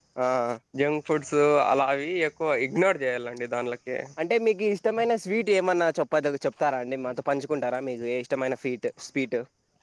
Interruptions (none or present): none